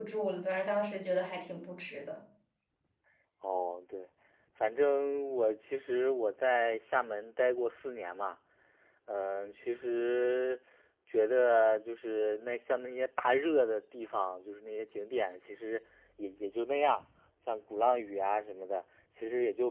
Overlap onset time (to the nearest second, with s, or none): none